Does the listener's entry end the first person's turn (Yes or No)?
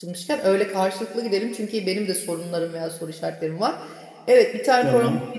No